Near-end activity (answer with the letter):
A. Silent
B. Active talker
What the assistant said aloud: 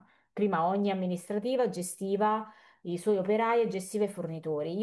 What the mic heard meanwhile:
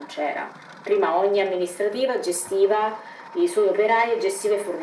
A